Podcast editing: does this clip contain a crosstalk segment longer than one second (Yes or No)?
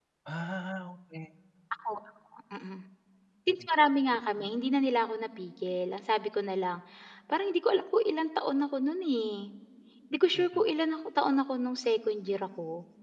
No